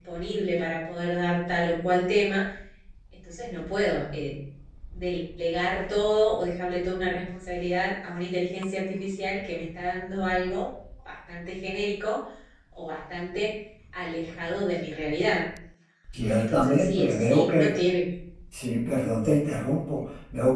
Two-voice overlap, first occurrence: 16 s

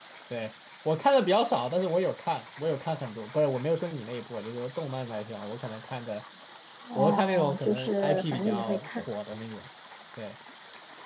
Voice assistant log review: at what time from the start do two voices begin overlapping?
7 s

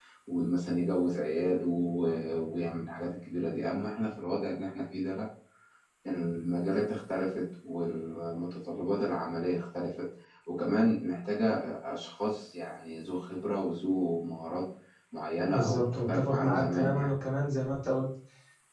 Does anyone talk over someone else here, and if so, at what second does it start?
15 s

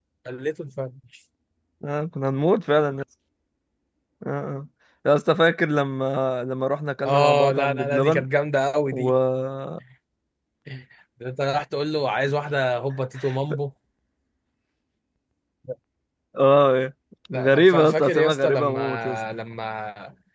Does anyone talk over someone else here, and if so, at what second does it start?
7 s

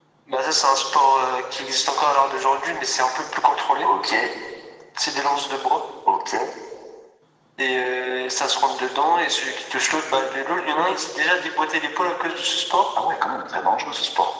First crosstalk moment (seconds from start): none

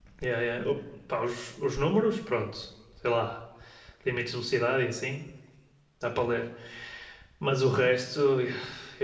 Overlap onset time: none

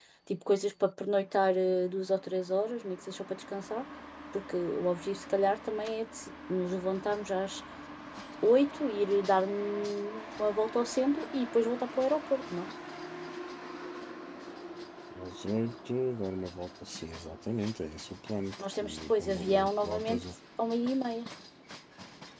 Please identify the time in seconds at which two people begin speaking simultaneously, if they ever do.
19 s

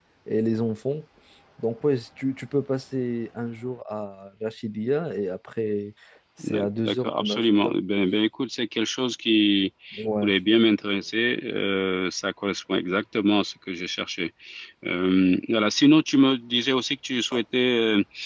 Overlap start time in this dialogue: 6 s

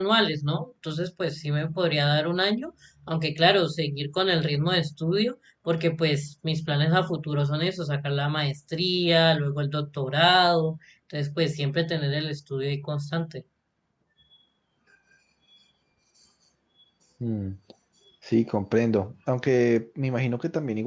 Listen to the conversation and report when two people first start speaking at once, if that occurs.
none

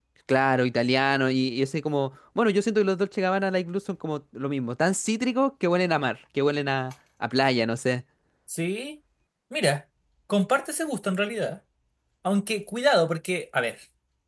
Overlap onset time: none

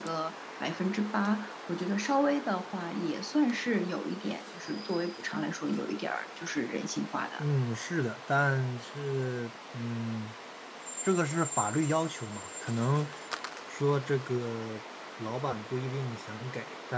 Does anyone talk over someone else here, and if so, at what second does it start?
none

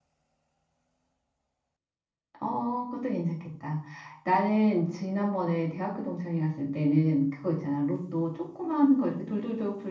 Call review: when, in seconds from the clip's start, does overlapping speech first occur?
none

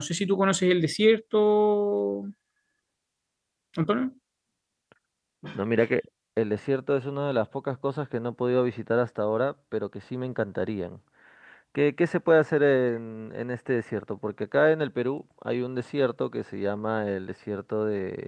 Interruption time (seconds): none

